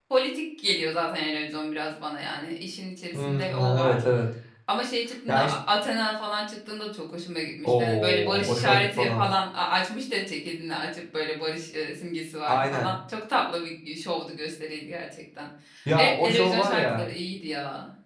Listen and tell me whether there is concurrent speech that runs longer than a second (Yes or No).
Yes